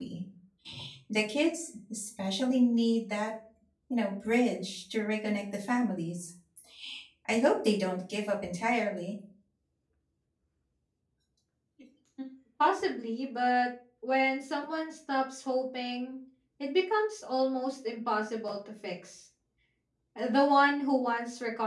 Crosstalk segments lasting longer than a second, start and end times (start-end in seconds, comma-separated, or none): none